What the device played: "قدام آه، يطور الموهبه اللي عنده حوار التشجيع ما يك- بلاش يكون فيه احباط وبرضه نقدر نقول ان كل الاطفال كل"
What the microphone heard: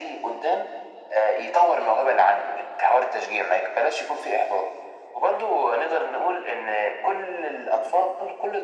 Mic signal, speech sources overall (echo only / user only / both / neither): echo only